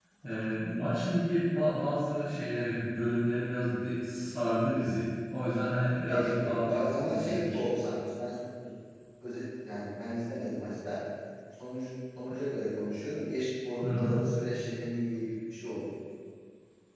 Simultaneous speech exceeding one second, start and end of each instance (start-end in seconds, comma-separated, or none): 6.1-7.6